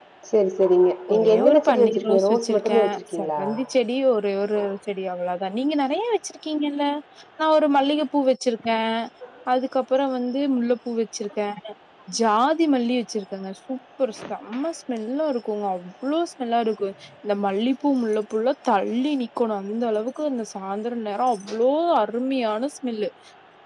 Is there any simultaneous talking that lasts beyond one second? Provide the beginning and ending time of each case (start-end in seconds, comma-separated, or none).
1.1-3.4